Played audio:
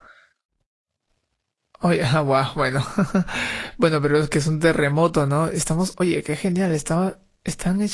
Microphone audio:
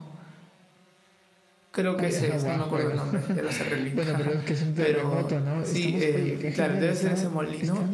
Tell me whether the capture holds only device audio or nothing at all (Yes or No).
No